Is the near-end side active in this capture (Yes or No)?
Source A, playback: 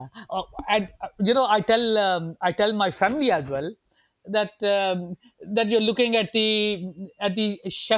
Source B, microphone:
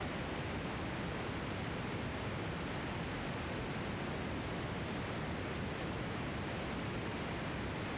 No